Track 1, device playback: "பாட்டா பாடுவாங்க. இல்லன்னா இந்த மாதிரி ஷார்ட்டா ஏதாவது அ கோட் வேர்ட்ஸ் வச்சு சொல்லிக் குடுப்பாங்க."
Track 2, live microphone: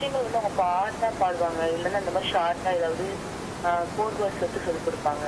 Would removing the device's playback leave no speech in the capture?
Yes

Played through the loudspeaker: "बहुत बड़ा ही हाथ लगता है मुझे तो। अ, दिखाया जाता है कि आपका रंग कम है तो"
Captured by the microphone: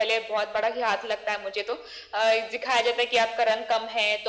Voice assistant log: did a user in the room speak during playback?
No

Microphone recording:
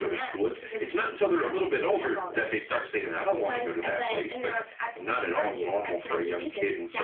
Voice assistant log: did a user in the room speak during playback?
No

